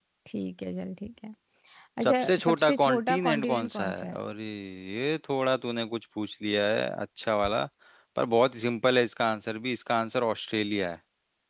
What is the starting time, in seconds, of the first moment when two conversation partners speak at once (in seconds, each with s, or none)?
2.0 s